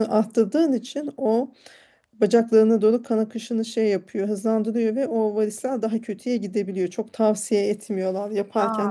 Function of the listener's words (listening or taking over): listening